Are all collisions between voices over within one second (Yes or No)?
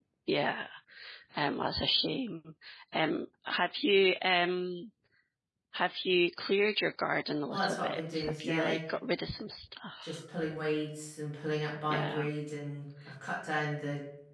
No